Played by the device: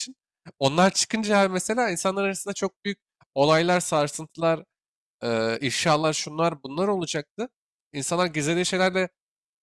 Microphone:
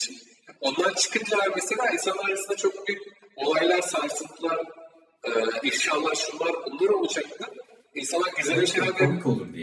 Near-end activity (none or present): present